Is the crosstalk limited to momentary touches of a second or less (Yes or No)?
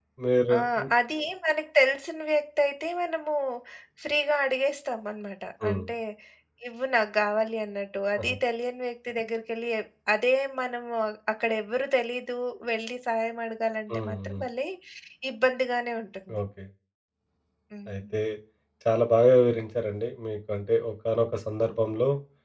Yes